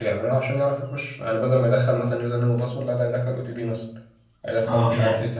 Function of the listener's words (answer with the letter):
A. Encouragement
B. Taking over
B